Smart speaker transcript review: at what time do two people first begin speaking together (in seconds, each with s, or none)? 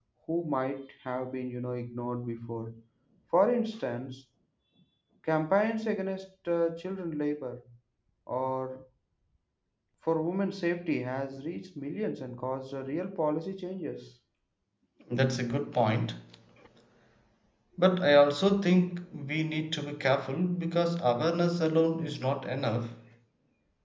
none